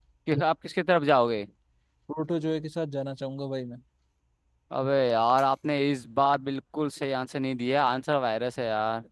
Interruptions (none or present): none